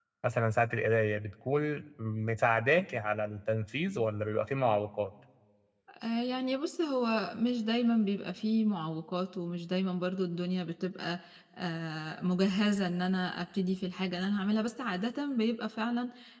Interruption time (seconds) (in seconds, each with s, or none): none